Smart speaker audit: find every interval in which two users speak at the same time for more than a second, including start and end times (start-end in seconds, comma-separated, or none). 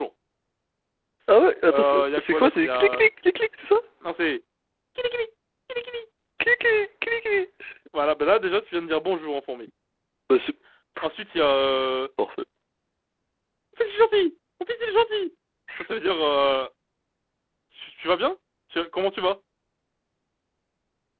1.7-3.0